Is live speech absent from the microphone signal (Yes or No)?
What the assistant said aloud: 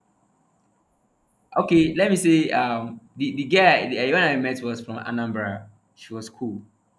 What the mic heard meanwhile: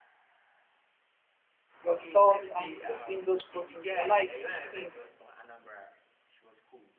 No